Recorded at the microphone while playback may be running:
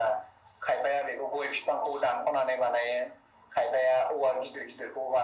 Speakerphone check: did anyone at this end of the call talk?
No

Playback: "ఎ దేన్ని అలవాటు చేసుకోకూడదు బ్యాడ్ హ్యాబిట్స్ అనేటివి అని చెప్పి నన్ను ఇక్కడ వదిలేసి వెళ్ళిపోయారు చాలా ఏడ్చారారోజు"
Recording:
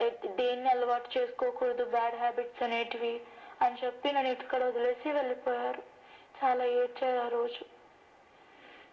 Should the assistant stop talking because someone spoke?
No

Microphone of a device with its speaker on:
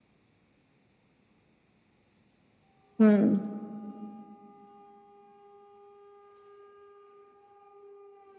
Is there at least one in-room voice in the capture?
Yes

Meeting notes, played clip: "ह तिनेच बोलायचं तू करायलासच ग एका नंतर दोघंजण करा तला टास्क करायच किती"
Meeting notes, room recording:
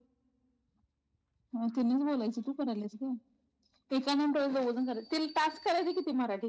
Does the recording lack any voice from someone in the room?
Yes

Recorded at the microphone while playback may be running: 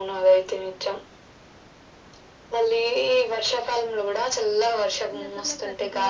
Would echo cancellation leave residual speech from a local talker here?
Yes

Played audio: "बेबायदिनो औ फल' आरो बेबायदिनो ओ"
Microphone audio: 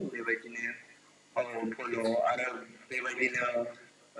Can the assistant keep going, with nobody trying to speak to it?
Yes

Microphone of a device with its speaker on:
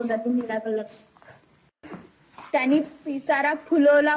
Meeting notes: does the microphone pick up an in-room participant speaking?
No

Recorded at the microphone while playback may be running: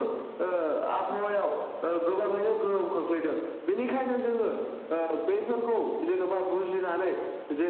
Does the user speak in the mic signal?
No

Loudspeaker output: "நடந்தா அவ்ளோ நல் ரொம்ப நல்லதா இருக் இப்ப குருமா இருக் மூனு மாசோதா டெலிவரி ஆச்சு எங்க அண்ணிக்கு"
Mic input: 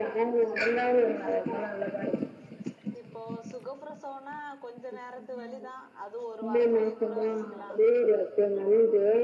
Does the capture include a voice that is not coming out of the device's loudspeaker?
Yes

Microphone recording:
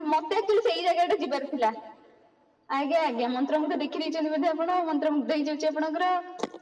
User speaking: No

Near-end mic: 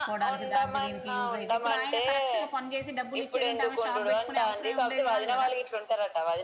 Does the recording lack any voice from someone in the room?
No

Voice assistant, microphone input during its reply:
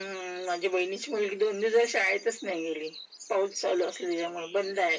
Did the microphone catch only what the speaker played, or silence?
Yes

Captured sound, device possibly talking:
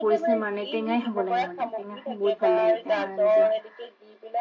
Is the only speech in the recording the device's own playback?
No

